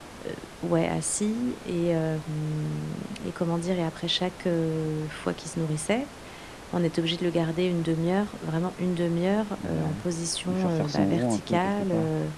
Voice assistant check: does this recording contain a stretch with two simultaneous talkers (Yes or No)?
Yes